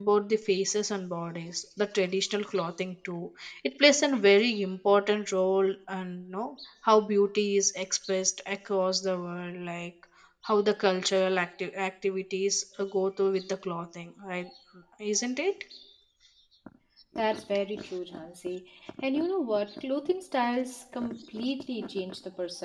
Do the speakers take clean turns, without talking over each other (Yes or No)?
Yes